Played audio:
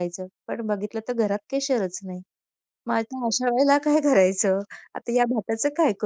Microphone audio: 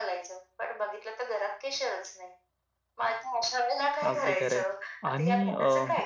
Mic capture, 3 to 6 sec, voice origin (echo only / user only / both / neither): both